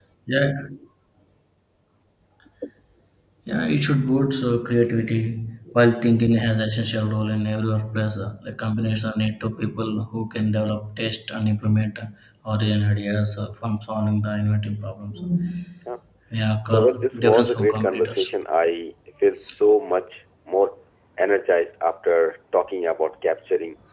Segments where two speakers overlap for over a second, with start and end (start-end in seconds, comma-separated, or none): 16.6-18.3